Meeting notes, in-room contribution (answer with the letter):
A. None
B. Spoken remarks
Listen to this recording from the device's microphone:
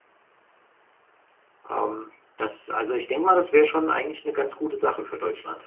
B